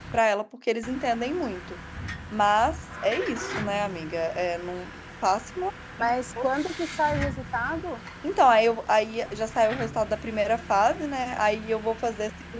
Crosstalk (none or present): none